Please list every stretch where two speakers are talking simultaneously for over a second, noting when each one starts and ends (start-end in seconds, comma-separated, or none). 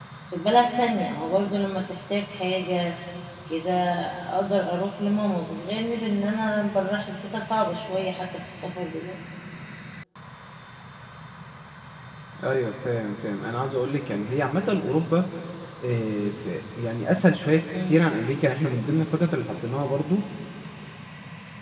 none